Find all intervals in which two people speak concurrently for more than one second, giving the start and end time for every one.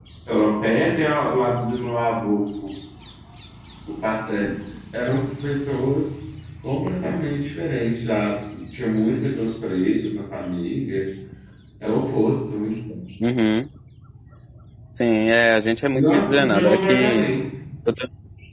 15.9-17.2

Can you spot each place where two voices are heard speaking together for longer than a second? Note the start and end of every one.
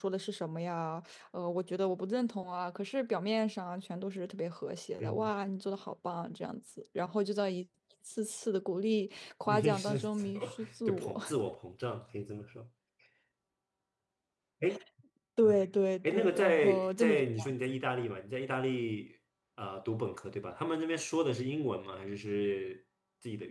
9.5-11.1, 16.1-17.5

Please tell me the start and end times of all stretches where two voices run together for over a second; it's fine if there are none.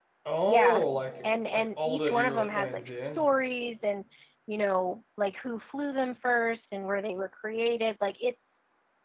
1.5-3.2

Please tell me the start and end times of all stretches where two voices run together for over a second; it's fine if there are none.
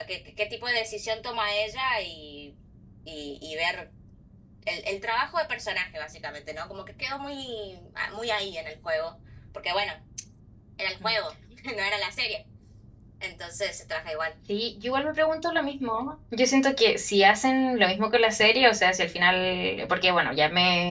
none

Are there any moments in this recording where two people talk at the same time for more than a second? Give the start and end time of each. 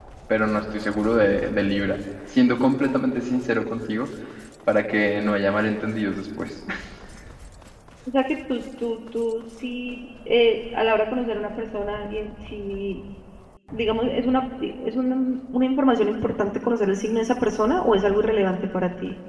none

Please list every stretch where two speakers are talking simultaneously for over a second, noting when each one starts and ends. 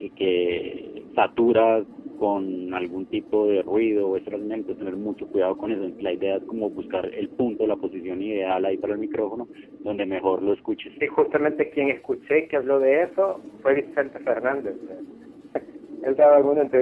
none

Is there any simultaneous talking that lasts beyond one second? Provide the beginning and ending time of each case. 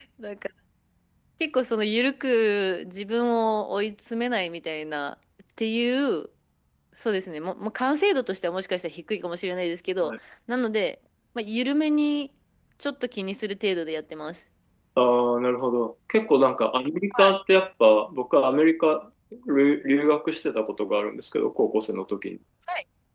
none

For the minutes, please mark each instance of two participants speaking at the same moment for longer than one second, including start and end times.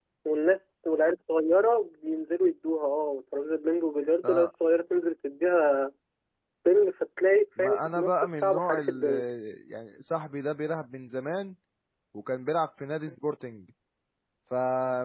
7.6-9.1

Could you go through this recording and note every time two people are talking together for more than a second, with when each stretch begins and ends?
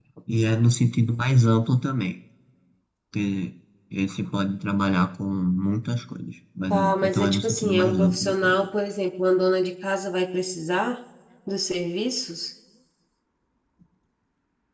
6.7-8.7

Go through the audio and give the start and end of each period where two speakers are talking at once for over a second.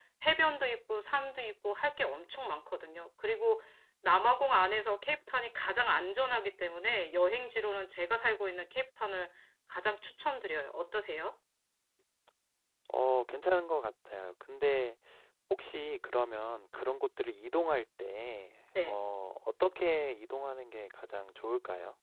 none

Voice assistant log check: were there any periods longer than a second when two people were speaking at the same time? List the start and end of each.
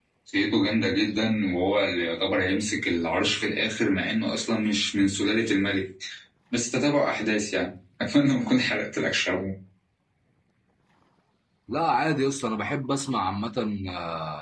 none

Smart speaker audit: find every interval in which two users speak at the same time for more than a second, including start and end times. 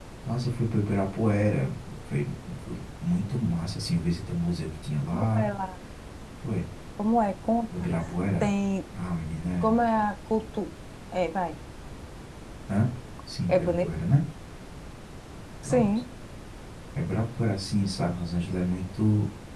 none

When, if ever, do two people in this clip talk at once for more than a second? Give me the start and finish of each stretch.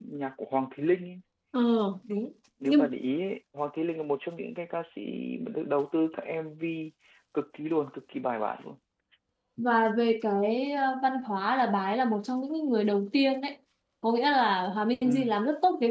none

